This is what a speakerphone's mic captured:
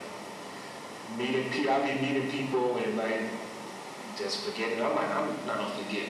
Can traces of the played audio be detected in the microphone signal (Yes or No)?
Yes